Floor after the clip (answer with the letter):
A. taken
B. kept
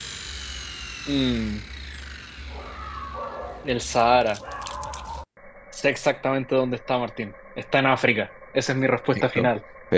A